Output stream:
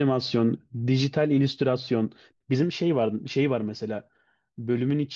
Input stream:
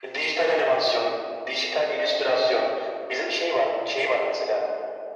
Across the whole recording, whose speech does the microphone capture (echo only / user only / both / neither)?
echo only